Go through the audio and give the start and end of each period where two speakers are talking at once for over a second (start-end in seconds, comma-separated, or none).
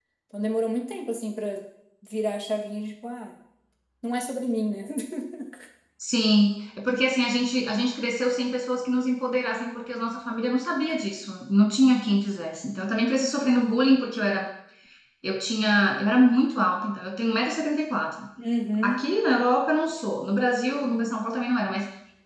none